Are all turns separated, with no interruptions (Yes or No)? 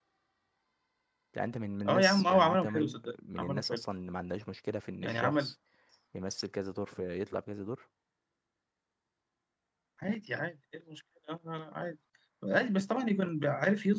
No